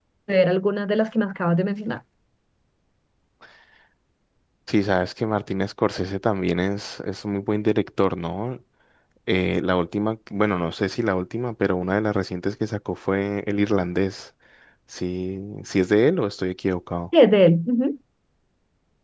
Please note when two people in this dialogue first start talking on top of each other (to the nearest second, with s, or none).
none